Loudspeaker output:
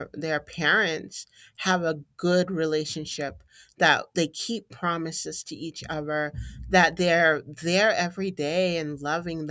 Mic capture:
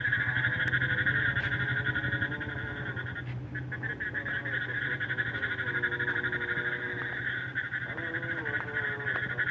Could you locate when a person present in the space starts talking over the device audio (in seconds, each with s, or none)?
none